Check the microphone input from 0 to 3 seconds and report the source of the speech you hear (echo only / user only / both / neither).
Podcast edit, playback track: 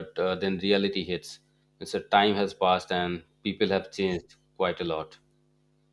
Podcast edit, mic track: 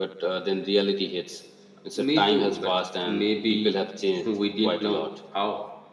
both